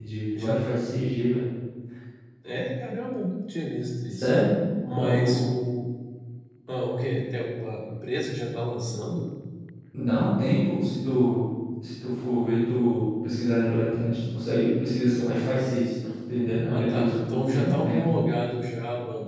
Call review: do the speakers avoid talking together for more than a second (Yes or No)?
No